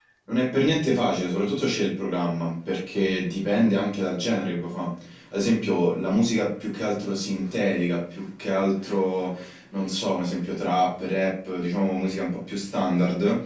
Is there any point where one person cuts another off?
No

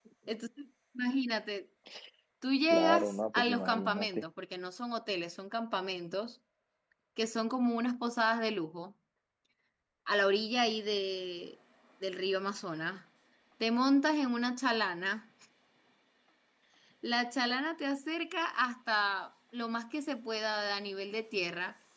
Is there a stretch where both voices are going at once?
Yes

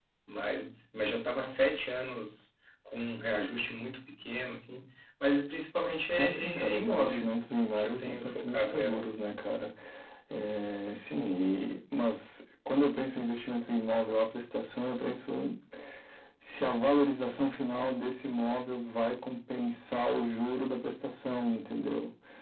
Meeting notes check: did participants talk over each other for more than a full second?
Yes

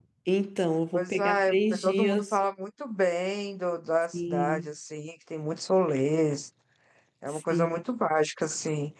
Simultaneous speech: Yes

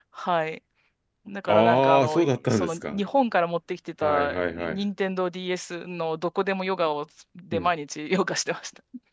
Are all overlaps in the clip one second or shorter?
No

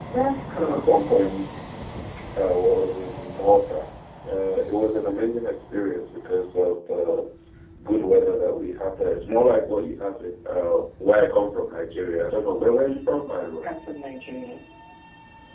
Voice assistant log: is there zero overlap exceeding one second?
Yes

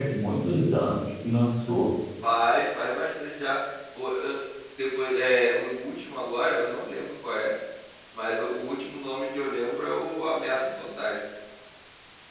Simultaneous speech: No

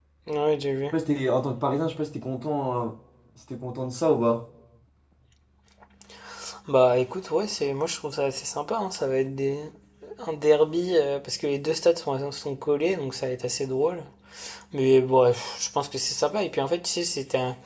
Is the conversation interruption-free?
Yes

